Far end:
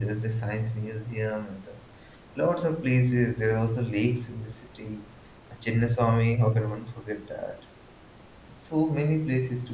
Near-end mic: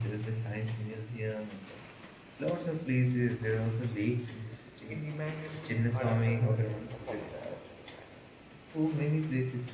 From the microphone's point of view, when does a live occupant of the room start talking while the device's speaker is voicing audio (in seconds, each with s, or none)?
4.9 s